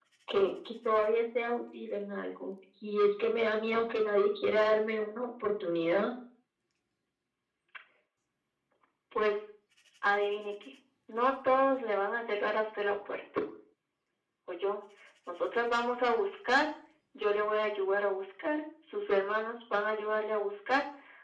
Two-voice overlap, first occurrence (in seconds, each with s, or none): none